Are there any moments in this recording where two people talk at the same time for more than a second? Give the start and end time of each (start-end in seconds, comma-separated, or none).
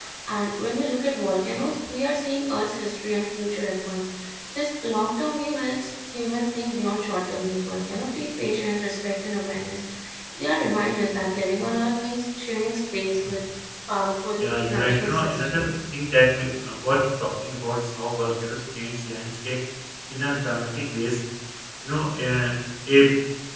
14.4-15.7